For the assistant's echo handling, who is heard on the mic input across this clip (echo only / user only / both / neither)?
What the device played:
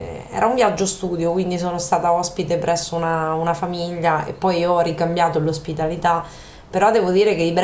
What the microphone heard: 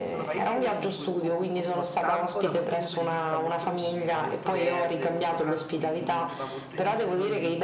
both